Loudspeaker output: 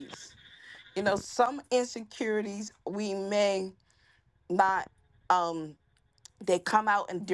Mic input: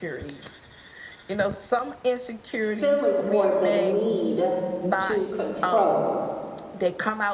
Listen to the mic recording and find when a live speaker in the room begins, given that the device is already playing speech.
2.6 s

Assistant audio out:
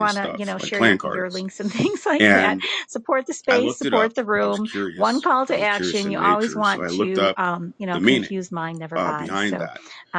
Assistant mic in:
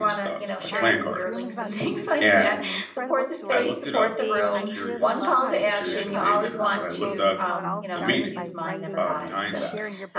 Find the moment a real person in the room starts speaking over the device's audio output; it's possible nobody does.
0.7 s

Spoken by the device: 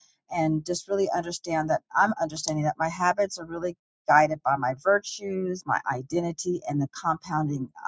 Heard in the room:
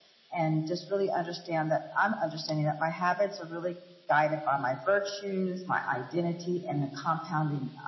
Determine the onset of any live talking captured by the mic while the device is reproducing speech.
none

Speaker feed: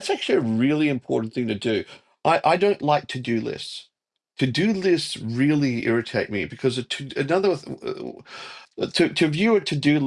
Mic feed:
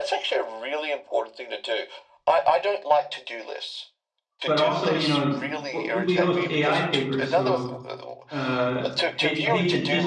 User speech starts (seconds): 4.5 s

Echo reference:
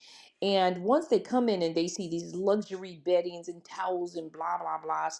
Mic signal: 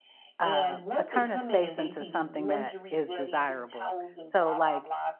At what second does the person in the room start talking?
0.4 s

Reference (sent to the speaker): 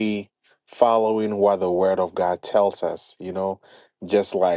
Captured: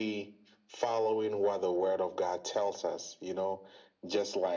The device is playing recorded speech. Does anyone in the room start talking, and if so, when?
none

